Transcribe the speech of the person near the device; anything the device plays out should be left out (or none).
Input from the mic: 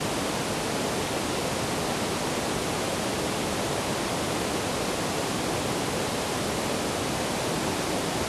none